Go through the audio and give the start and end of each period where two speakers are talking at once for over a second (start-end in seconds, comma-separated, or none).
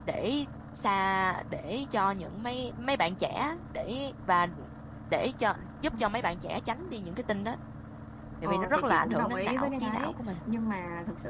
8.4-10.1